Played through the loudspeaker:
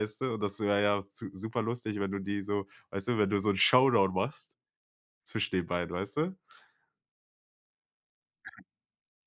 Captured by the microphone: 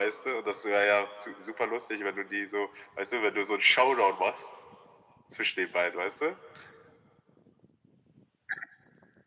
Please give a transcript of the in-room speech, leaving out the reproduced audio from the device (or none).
none